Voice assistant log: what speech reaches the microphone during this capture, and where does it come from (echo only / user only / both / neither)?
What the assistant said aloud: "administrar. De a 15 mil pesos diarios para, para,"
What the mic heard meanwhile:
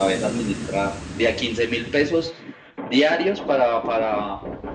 echo only